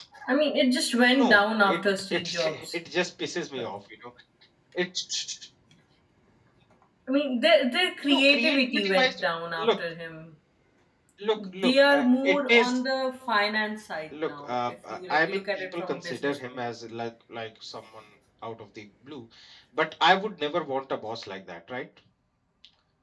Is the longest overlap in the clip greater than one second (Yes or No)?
Yes